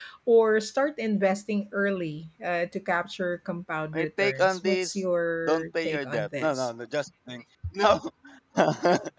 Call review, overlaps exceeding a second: present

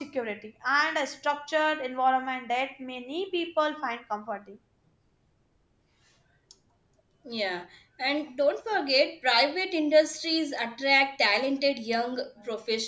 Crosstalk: none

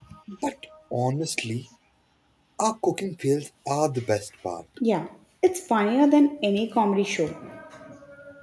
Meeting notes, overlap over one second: none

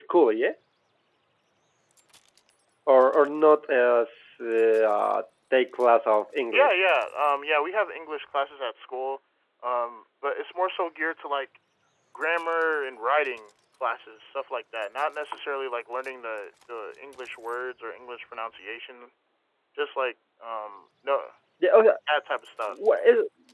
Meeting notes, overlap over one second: none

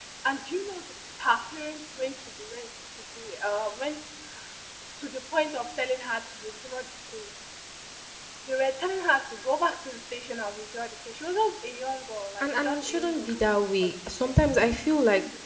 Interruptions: present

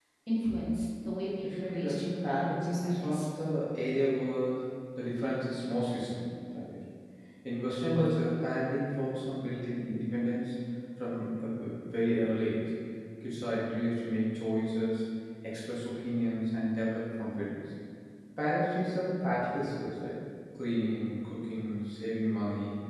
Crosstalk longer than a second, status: present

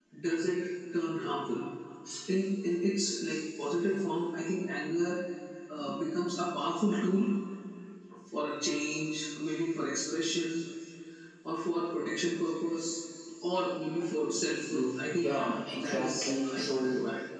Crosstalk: present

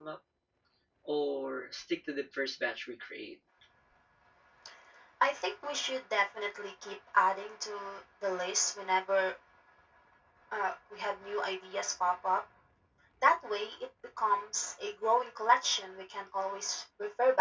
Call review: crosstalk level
none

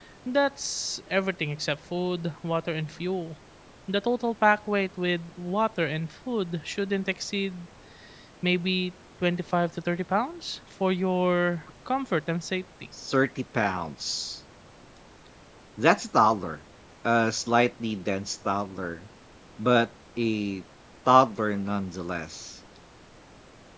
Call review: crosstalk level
none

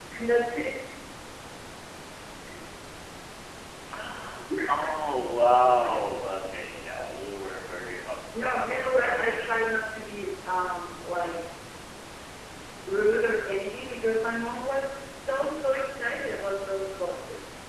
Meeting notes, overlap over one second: present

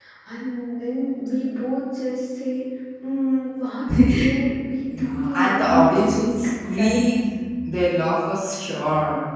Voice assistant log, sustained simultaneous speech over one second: present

